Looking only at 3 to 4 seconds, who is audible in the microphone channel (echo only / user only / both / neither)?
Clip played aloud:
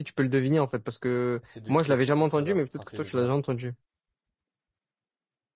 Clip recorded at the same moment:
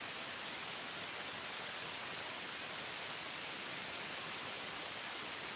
neither